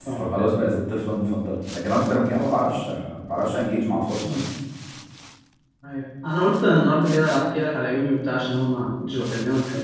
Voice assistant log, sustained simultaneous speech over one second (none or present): none